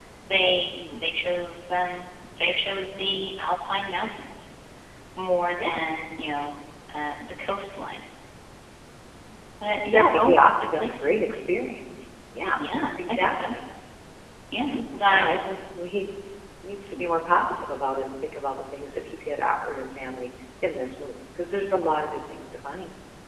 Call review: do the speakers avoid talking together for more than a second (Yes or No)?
No